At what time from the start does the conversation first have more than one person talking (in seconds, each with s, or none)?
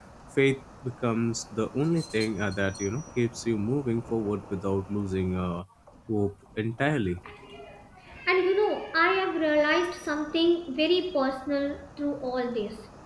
none